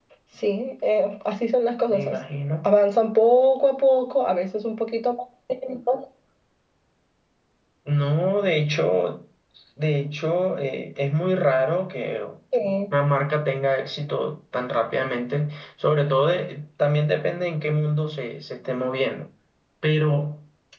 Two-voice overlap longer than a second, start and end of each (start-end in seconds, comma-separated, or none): none